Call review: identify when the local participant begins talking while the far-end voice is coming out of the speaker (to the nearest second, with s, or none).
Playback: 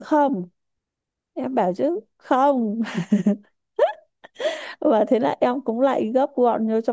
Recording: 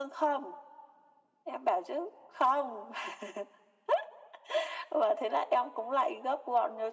none